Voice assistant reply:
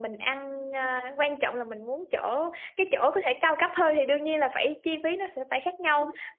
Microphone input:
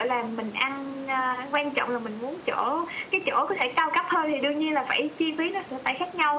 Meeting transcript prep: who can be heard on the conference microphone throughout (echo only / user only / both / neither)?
echo only